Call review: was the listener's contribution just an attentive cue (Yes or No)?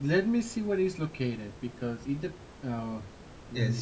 No